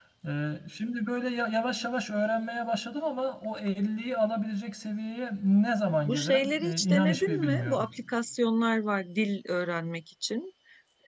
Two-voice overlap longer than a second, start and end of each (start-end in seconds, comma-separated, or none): 6.0-7.9